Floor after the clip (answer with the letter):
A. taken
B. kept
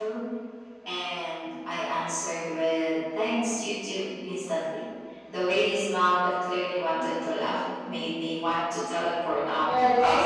A